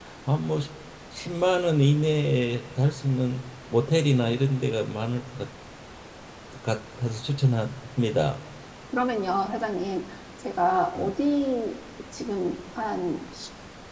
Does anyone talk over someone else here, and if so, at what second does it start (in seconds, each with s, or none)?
none